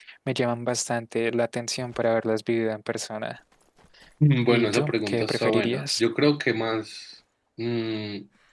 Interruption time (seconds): 4 s

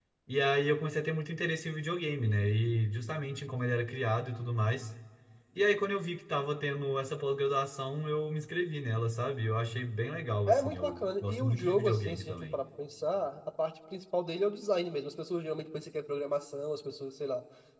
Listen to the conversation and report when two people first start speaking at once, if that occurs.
10 s

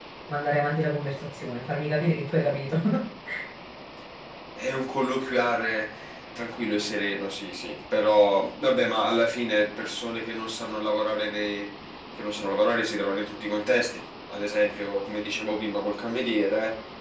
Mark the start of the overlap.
none

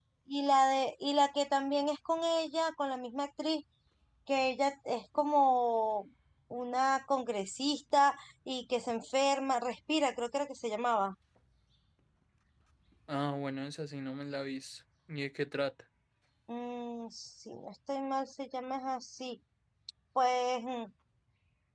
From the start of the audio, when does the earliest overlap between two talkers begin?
none

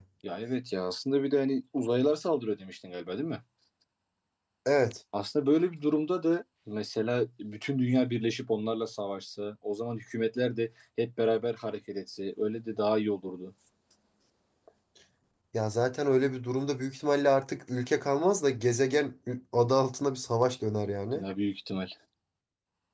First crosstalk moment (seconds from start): none

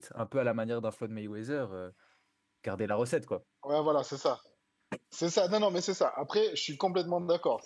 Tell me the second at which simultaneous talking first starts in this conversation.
none

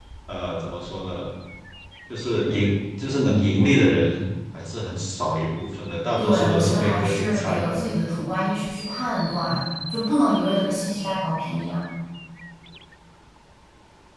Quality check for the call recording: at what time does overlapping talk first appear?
6 s

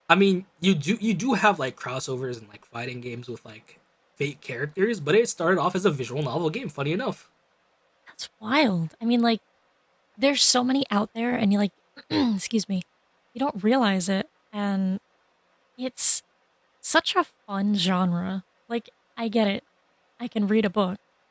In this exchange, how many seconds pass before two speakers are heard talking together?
none

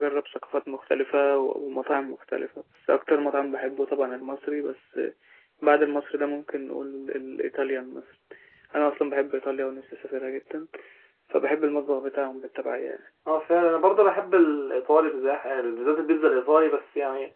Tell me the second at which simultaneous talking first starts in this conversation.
none

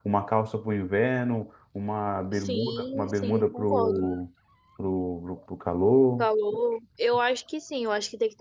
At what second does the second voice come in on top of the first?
2 s

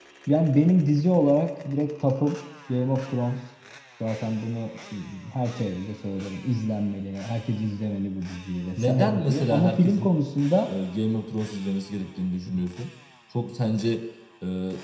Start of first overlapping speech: 9 s

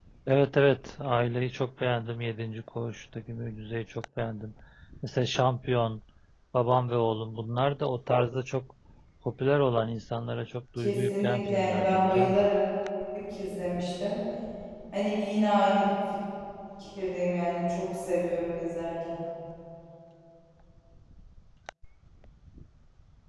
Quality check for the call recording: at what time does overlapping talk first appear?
11 s

